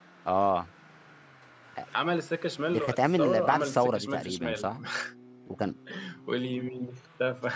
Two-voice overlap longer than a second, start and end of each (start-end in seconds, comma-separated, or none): 2.7-4.7